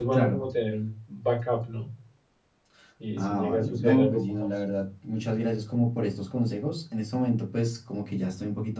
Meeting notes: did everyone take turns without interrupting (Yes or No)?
No